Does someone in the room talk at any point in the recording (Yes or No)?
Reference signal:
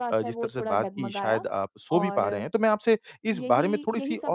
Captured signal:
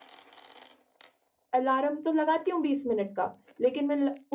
Yes